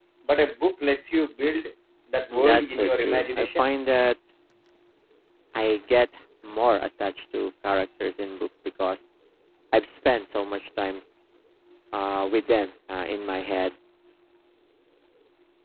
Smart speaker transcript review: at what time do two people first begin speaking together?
2.3 s

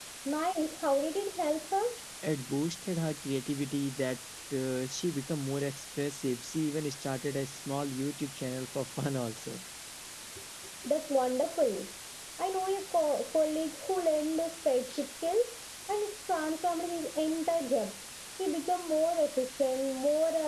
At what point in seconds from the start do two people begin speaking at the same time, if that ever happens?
none

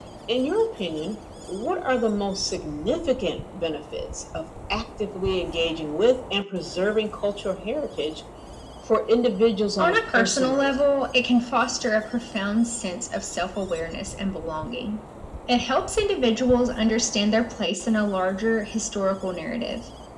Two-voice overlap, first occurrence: 9.8 s

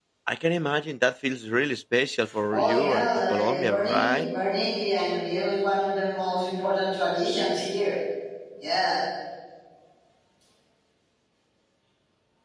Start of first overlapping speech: 2.5 s

